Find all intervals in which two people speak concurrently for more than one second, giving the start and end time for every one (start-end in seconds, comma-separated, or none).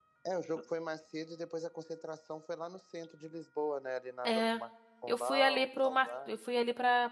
5.1-6.3